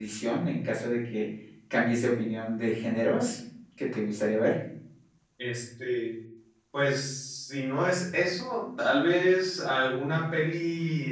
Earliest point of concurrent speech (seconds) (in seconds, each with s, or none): none